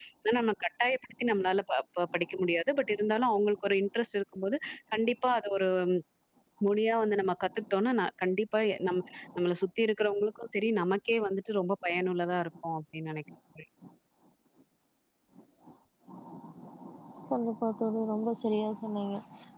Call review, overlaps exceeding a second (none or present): none